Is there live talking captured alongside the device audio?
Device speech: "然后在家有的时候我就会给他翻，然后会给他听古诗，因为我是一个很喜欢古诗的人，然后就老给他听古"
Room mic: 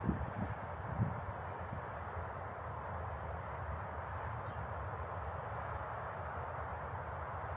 No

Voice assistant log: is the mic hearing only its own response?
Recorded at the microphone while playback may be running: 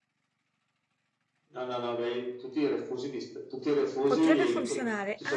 No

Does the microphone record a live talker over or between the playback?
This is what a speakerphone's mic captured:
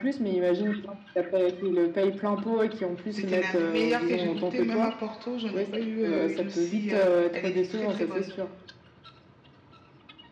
Yes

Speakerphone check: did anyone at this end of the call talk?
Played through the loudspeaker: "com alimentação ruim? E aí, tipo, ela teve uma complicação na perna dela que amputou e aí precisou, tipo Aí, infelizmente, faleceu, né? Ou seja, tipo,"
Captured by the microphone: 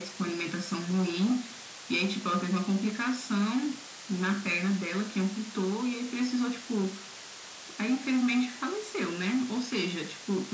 No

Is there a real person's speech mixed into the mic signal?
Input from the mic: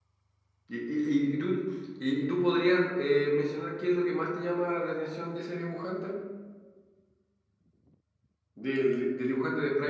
Yes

